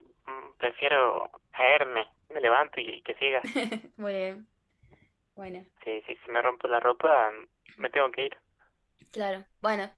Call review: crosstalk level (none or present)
none